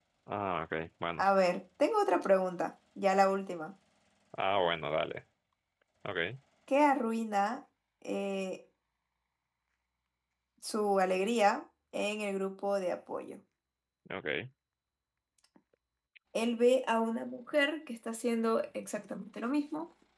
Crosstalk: none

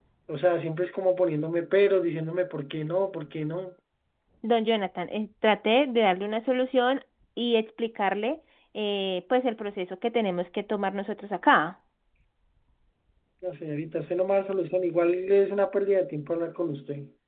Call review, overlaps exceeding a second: none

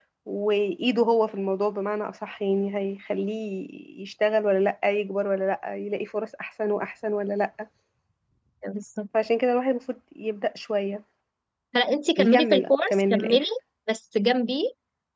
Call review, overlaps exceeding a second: present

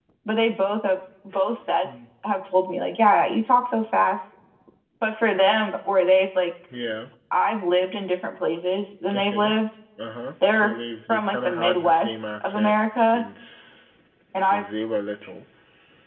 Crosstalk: present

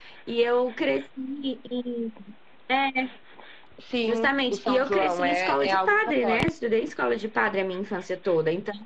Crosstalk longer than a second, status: present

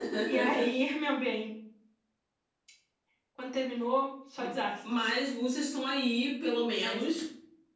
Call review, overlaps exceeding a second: none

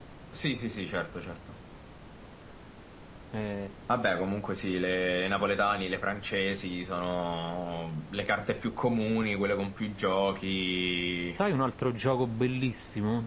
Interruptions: none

